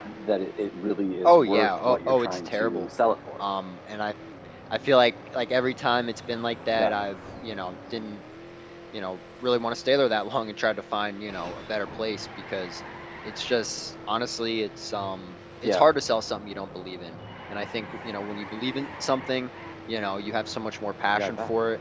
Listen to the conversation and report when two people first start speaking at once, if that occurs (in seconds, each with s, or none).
1.2 s